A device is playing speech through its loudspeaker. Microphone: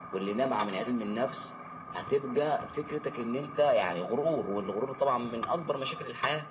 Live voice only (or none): none